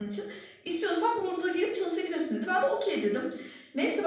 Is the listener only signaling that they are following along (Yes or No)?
Yes